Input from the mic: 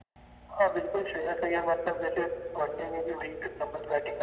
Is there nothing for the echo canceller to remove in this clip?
No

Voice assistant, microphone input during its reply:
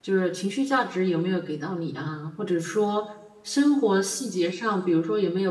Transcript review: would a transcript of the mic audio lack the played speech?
Yes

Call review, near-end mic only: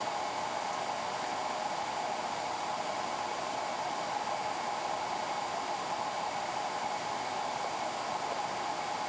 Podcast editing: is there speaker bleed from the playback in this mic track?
No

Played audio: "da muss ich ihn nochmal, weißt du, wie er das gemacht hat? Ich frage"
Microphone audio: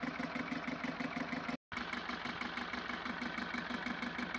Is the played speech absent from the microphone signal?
Yes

